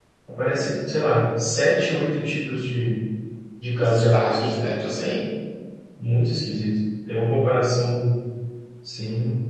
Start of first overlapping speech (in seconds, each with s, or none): 3.8 s